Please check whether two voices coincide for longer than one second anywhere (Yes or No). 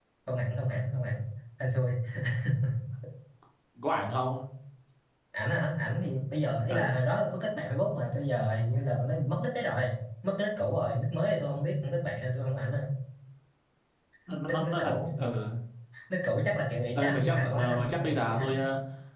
Yes